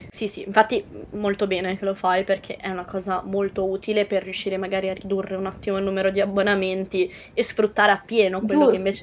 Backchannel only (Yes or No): No